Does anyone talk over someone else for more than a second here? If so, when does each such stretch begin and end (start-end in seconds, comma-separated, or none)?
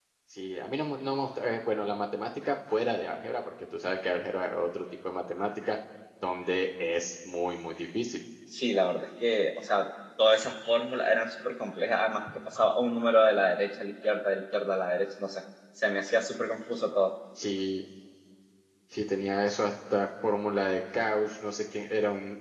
none